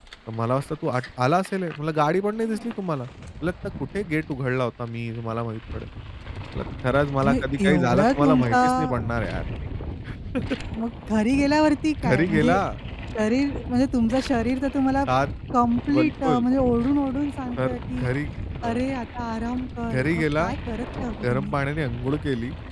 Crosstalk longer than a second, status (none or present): present